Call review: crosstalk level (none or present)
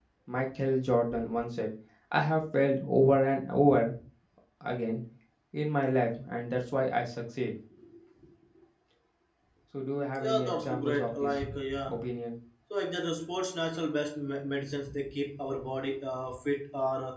present